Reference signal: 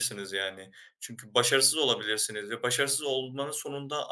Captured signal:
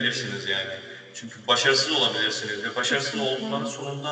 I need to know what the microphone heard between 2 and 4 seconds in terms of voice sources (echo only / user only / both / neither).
both